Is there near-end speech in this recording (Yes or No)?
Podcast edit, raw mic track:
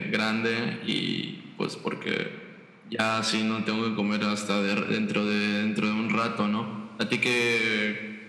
No